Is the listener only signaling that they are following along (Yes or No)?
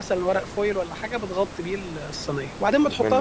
Yes